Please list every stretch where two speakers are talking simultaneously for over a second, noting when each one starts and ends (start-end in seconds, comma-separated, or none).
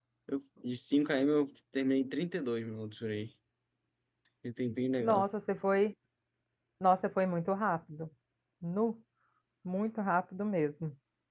none